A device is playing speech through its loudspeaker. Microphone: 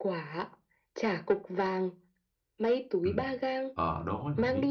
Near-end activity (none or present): present